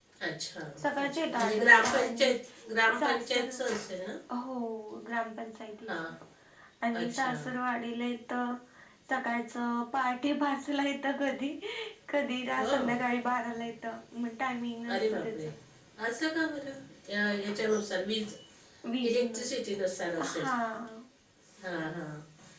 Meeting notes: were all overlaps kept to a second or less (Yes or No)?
No